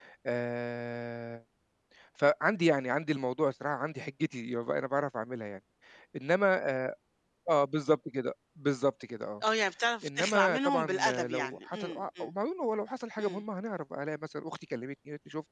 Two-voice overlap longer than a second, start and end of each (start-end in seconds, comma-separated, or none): 10.0-12.3